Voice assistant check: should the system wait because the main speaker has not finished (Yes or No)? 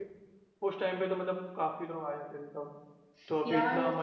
No